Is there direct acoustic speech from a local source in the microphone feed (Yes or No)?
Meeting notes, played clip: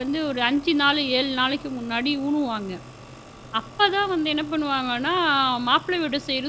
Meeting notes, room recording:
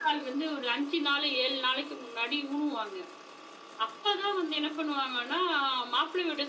No